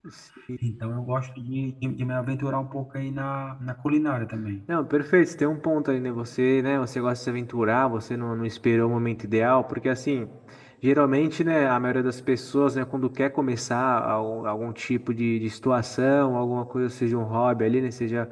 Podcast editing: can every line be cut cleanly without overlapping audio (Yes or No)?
Yes